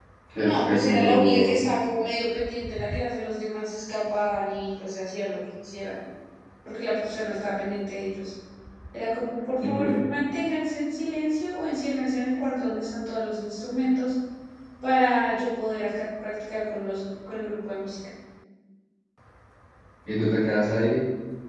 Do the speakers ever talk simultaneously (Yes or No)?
Yes